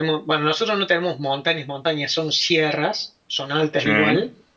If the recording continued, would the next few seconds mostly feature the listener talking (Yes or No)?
No